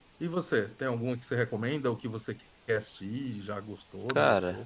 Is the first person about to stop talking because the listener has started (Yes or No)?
Yes